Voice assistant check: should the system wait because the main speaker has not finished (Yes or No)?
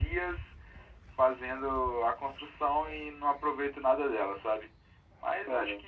Yes